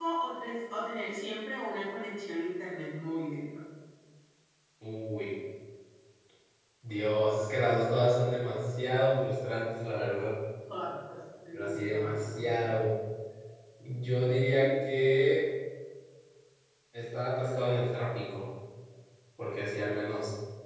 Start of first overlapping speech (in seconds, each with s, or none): 11.5 s